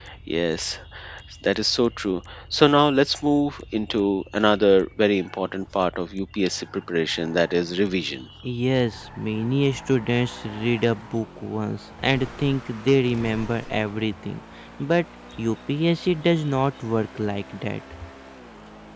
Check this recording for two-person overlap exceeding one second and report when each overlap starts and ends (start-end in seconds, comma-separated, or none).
none